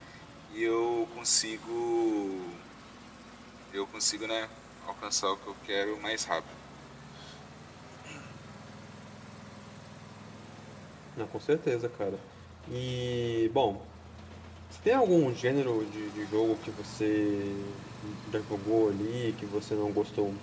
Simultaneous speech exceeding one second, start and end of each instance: none

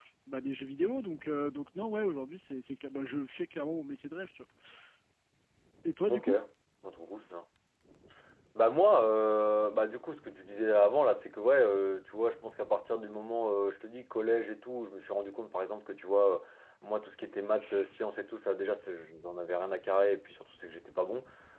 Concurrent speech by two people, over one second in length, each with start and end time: none

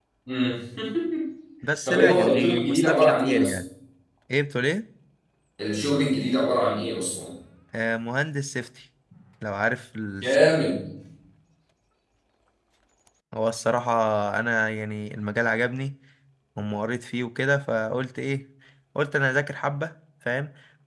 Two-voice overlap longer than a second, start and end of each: 1.9-3.5

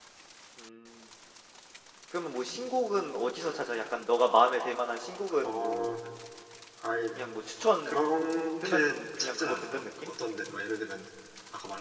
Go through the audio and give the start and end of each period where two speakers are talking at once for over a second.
8.6-10.1

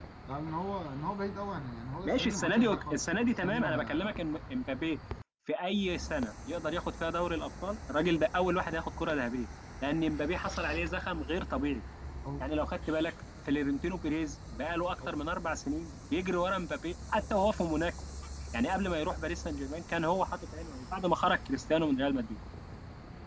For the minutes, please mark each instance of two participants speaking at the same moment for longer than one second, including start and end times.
2.0-4.1

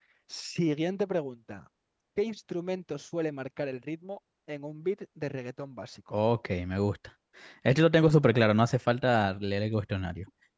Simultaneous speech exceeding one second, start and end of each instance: none

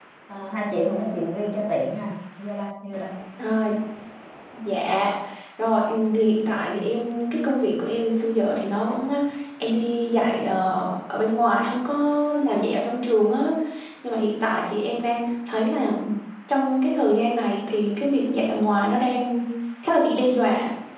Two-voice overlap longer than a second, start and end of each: none

